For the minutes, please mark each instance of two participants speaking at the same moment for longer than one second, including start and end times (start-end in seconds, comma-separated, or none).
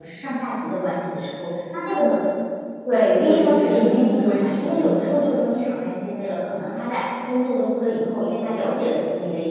2.9-5.0